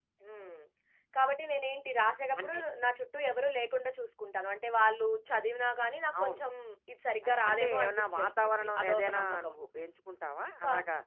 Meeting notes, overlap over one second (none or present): present